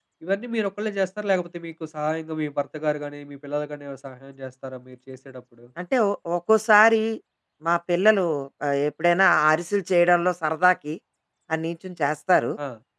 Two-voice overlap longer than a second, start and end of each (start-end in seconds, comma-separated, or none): none